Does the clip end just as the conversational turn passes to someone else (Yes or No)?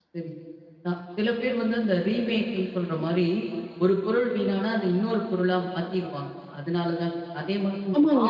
Yes